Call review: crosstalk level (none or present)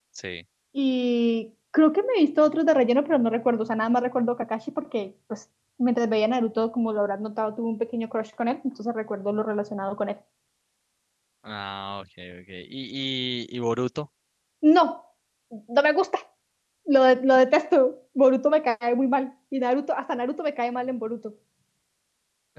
none